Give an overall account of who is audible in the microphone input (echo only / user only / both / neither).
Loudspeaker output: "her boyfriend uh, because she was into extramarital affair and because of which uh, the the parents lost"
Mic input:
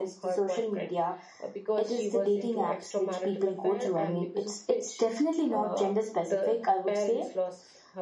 both